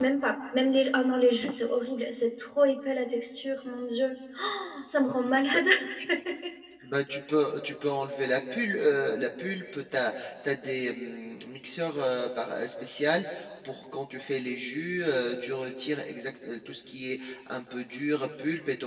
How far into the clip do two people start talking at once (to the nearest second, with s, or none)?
none